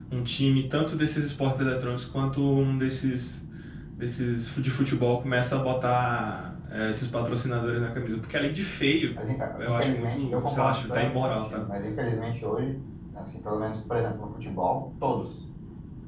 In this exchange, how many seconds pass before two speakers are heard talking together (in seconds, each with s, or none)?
9.6 s